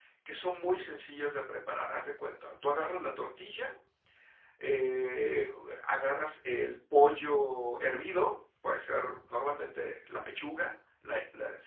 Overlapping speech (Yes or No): No